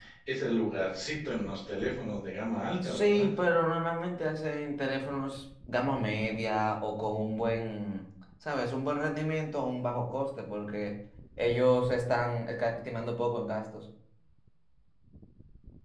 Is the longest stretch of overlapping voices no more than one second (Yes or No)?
Yes